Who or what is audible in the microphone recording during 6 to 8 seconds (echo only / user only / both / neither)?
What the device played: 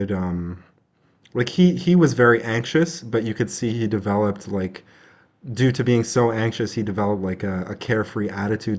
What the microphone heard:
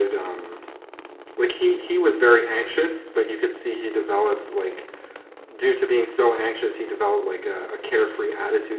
echo only